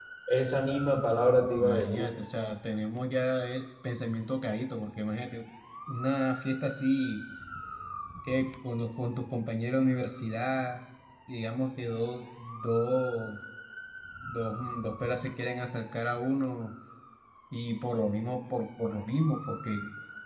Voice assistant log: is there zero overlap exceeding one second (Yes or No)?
Yes